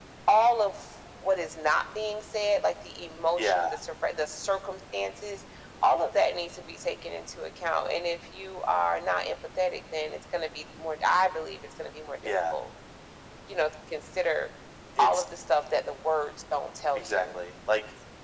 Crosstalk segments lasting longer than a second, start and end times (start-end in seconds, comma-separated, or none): none